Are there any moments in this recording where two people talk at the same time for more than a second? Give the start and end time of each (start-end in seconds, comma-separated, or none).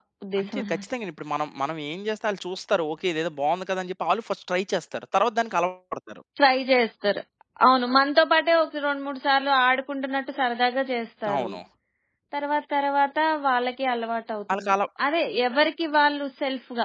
none